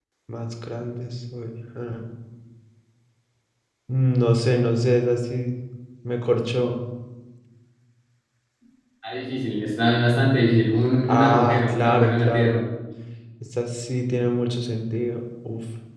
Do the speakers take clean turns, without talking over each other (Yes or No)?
No